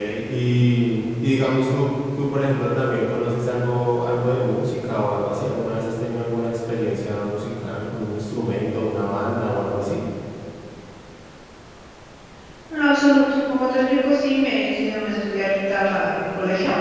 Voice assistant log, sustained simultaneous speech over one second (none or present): none